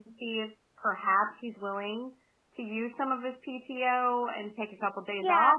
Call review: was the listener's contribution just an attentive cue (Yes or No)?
No